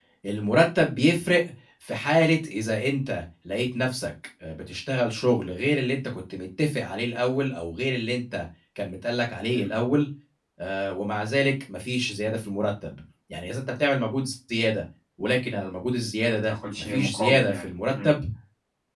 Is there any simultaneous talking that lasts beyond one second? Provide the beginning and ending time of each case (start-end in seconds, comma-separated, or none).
16.4-18.1